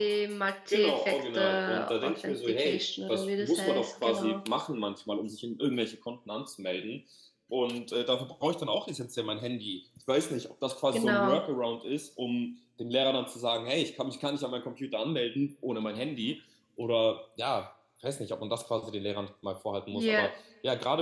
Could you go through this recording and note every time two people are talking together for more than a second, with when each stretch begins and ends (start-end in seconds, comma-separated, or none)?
0.7-4.4